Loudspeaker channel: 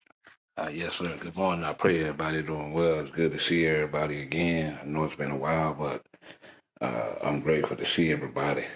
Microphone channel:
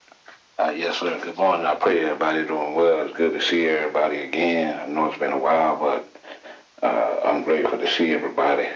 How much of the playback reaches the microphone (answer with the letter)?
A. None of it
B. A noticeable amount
B